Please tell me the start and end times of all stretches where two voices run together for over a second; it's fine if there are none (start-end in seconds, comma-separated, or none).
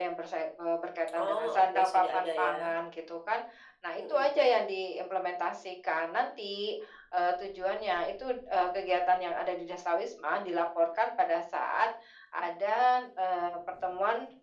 1.1-2.7